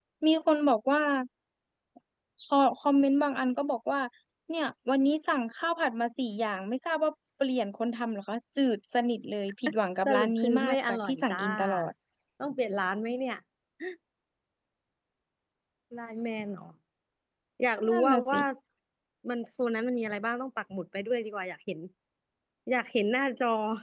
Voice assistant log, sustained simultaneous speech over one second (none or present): present